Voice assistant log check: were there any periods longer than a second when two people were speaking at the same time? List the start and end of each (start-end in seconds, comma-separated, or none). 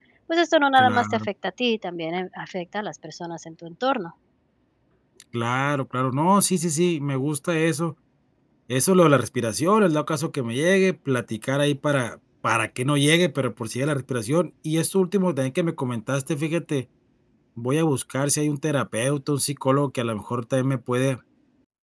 none